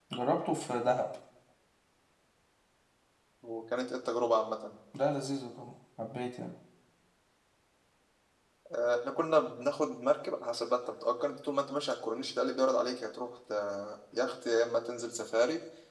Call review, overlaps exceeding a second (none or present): none